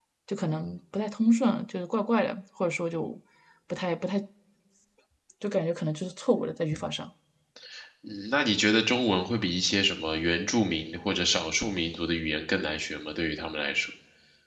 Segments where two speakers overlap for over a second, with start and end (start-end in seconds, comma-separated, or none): none